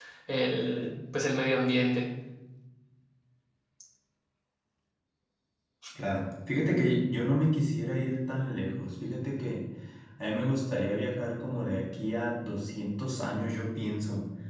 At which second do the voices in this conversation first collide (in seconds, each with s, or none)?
none